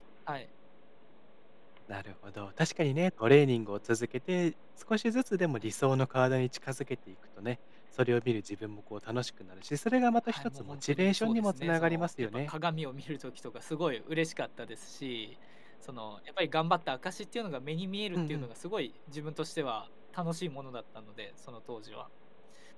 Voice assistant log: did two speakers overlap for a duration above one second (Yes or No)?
Yes